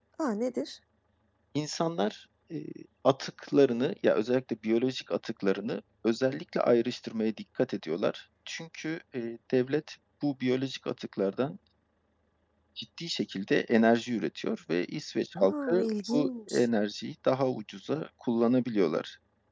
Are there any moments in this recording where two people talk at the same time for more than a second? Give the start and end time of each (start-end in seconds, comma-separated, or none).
15.4-16.7